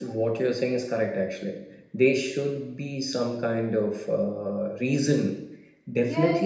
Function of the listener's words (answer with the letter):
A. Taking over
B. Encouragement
A